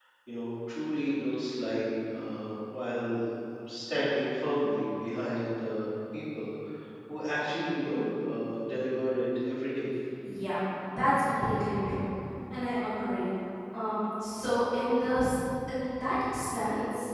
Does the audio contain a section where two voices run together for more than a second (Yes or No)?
No